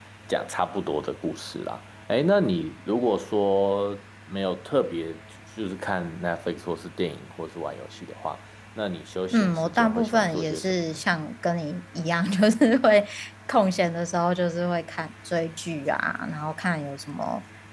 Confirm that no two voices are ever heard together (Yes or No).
No